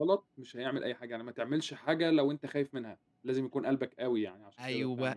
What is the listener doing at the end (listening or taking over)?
taking over